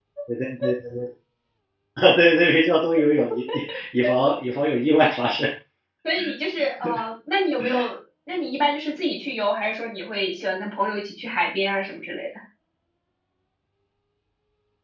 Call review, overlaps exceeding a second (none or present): none